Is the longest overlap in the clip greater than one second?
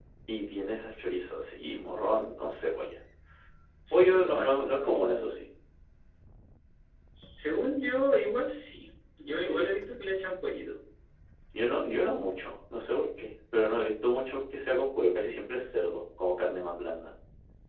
Yes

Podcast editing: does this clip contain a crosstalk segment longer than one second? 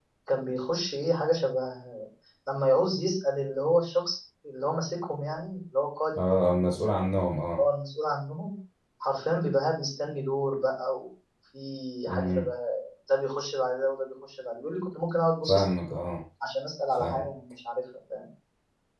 No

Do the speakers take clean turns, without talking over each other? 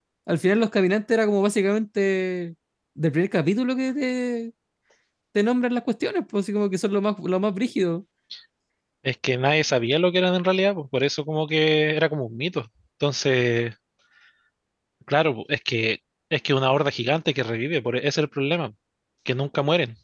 Yes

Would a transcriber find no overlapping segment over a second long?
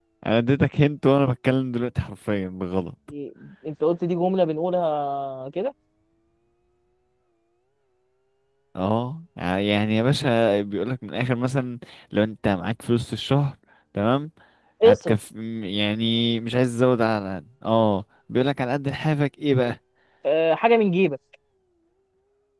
Yes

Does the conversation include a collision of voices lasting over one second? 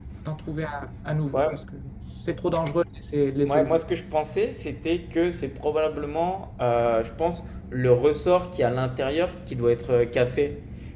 No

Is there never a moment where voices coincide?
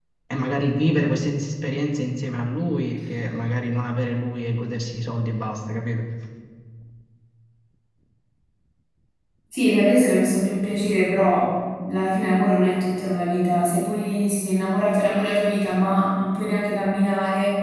Yes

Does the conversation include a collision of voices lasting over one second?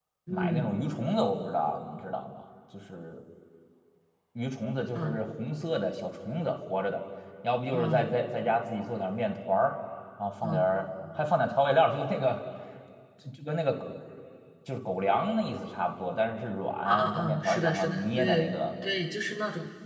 Yes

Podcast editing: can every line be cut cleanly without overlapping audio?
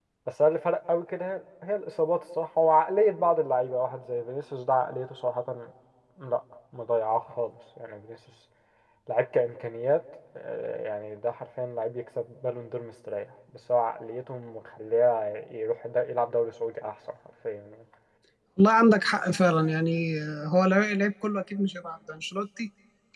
Yes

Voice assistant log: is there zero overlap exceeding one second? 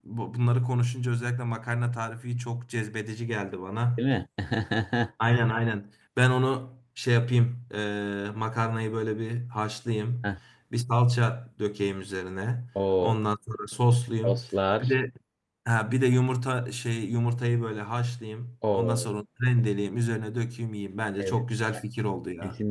Yes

